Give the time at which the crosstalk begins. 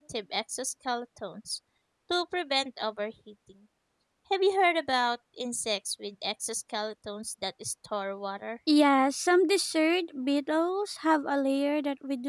none

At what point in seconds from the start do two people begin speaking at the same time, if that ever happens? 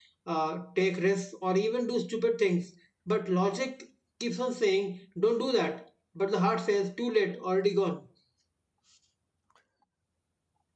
none

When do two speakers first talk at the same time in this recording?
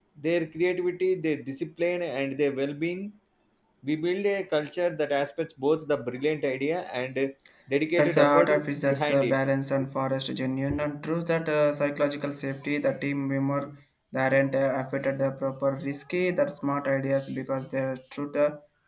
8.0 s

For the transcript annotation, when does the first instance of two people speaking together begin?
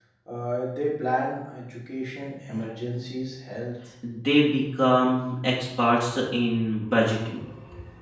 none

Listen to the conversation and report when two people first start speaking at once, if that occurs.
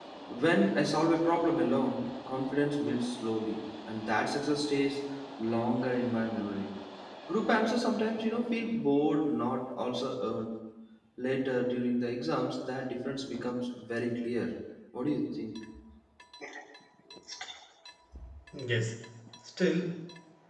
none

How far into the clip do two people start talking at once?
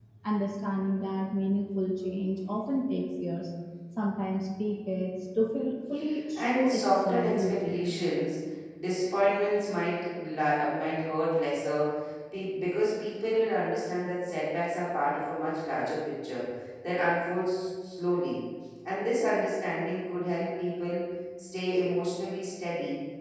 6.3 s

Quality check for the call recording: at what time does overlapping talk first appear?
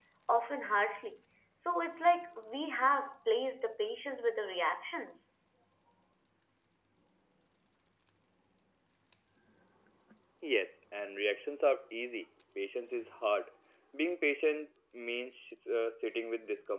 none

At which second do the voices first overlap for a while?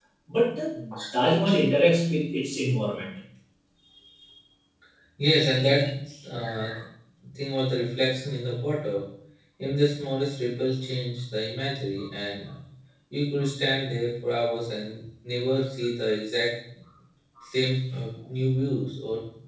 none

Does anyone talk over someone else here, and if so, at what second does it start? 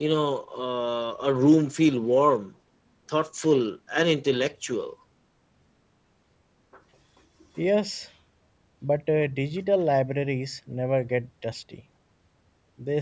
none

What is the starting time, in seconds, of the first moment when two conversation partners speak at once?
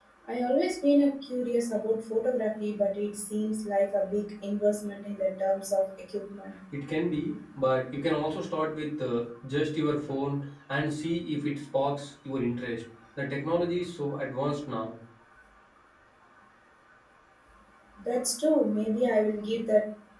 none

